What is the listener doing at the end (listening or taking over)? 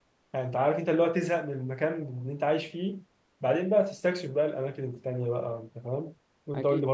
taking over